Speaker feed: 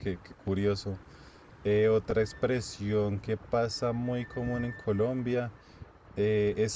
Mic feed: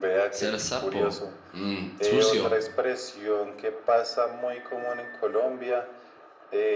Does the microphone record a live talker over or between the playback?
Yes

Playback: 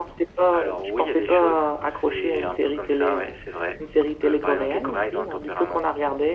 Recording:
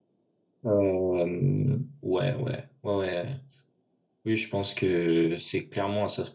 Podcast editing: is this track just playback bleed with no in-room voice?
No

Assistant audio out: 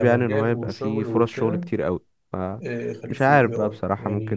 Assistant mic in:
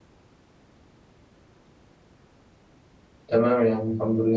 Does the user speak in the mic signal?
Yes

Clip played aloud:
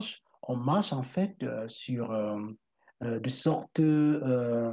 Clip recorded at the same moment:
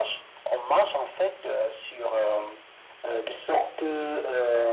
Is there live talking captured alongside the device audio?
No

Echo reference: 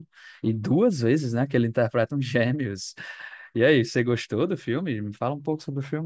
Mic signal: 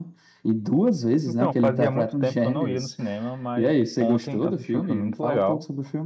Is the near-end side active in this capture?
Yes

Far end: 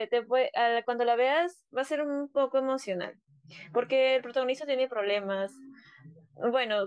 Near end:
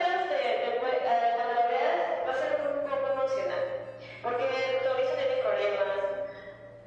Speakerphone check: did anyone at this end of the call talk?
No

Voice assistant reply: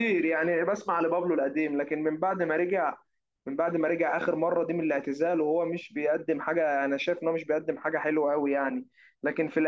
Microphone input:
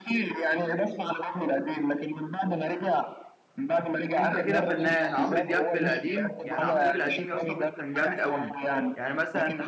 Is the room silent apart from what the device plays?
No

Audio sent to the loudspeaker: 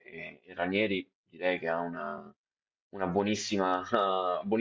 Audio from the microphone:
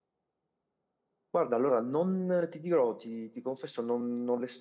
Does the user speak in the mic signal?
Yes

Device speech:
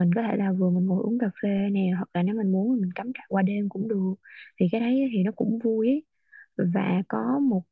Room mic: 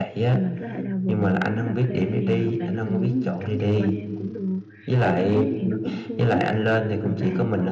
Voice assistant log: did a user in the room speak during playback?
Yes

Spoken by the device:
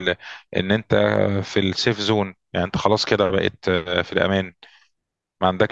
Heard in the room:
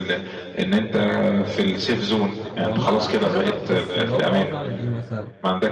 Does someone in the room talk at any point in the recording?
Yes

